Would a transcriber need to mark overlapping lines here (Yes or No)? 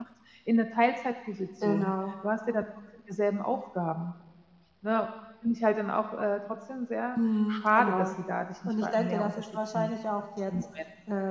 Yes